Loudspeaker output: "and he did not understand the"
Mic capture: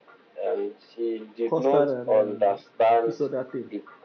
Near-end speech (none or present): present